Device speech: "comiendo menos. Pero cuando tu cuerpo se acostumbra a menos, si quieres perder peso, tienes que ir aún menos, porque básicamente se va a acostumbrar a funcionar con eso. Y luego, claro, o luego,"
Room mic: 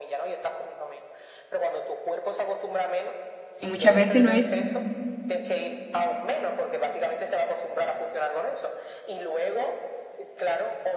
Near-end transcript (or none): Y muchas veces no es,